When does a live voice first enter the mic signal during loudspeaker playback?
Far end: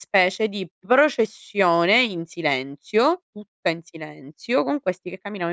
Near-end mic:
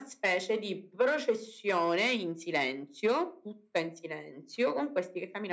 none

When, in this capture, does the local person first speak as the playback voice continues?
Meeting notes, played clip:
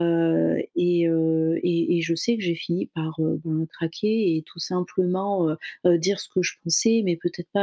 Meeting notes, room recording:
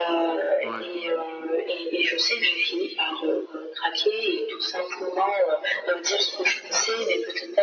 0.6 s

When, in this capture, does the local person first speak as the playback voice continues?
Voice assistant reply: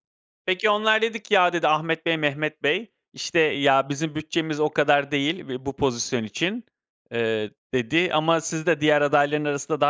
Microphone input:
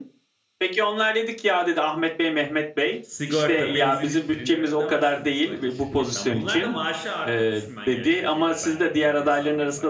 3.0 s

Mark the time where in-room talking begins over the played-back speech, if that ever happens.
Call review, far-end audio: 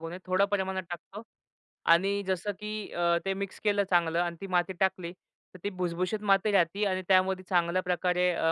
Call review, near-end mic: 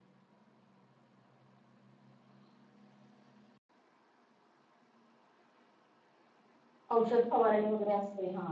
6.9 s

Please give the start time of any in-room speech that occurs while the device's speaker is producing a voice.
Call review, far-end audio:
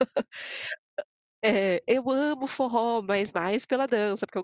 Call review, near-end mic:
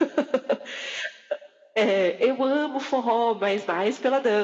none

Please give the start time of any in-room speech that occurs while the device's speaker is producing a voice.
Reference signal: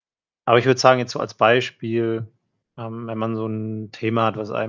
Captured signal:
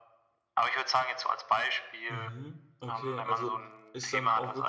2.1 s

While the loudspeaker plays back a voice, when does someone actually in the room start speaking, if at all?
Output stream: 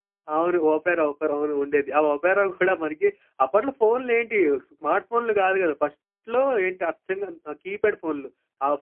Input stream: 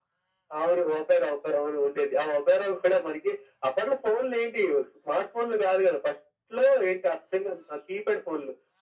none

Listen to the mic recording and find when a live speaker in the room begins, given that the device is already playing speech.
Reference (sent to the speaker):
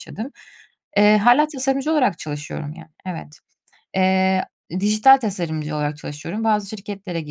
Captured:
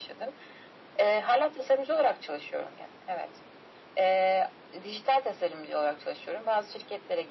none

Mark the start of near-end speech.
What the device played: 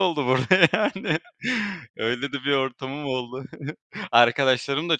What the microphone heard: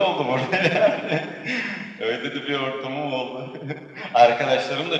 none

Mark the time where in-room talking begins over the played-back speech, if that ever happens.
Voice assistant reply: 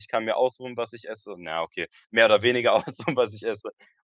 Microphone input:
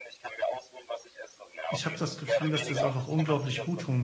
1.7 s

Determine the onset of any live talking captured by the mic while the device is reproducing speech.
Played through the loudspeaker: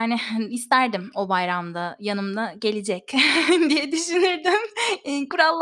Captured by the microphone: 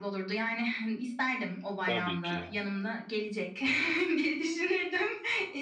1.8 s

